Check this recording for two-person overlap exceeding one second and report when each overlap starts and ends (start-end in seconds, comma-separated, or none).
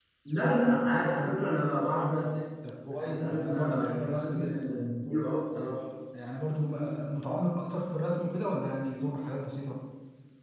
3.0-4.4